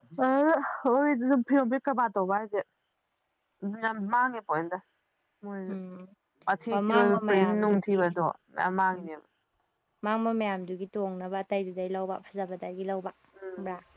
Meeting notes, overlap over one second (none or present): present